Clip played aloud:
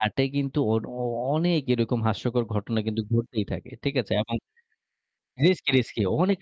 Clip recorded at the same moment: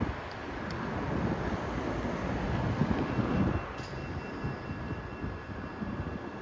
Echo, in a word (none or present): none